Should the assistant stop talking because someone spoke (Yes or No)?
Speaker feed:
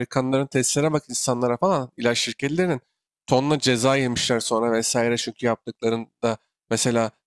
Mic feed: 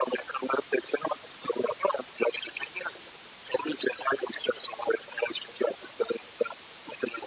No